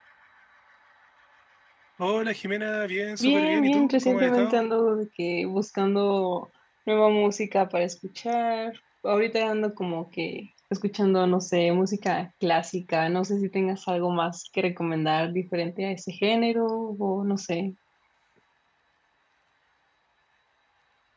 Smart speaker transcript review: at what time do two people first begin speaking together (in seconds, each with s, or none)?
3.2 s